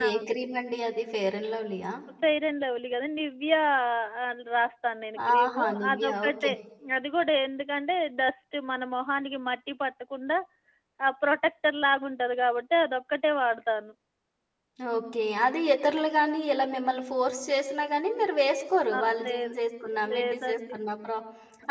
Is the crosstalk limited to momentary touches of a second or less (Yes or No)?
No